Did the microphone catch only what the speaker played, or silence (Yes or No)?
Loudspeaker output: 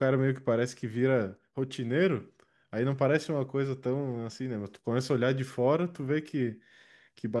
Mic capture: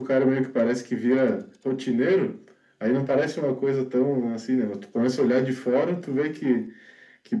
Yes